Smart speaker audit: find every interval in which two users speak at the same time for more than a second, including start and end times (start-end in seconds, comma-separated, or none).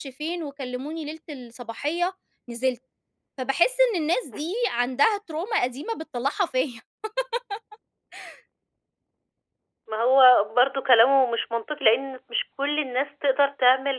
none